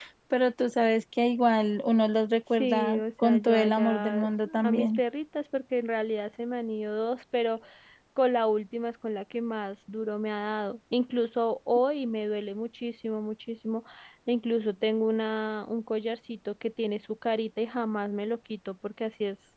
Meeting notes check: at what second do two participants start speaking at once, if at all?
2.6 s

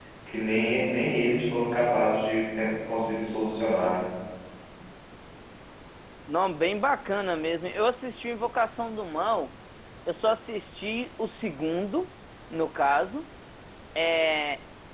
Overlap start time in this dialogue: none

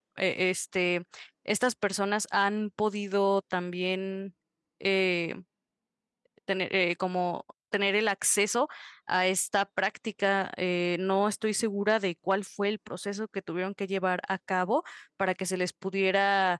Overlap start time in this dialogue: none

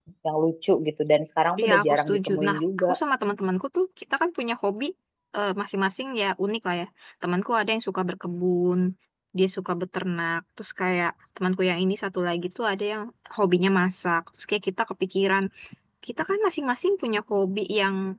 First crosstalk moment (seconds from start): 1.6 s

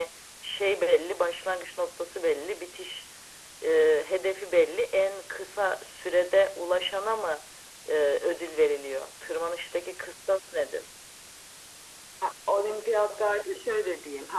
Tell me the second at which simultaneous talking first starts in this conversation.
none

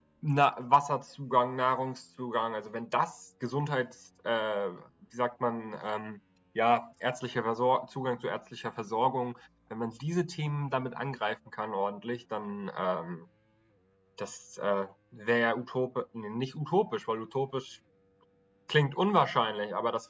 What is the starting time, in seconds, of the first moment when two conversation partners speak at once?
none

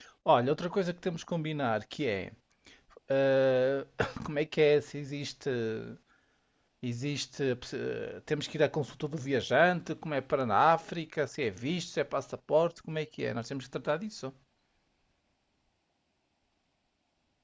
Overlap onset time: none

